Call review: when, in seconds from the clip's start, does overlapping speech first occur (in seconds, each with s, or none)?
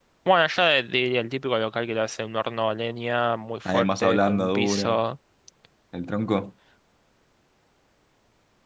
3.6 s